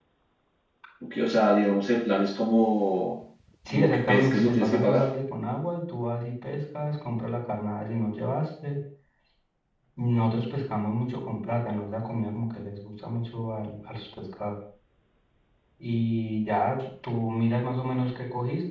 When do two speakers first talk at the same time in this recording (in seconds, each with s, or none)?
3.7 s